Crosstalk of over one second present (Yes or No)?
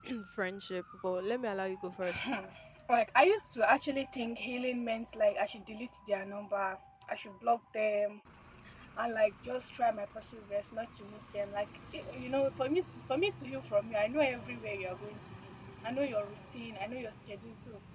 No